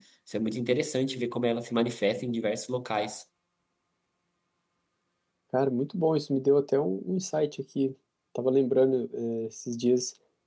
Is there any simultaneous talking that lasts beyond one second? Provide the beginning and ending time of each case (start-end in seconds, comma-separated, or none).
none